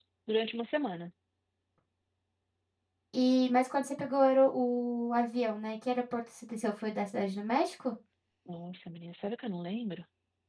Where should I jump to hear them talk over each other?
none

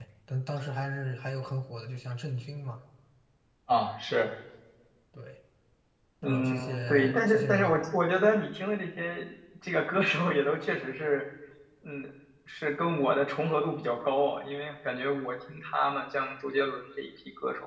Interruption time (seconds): 6 s

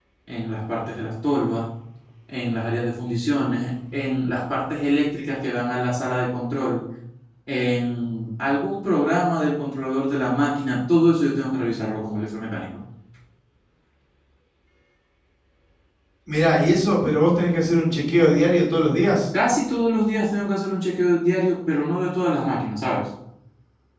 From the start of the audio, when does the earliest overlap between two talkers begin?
none

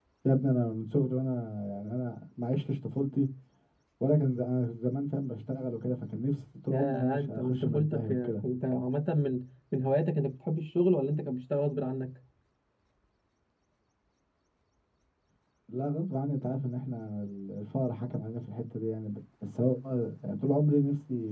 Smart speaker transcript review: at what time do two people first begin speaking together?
7 s

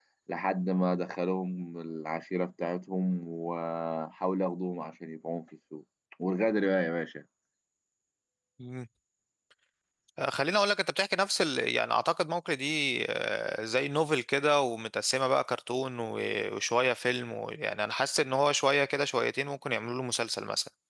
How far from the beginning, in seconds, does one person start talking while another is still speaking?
none

